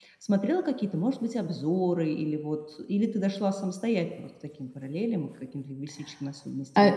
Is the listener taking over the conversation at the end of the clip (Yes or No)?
Yes